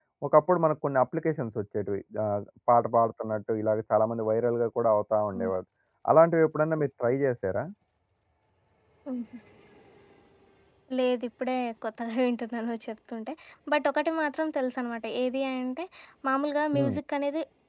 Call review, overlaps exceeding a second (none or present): none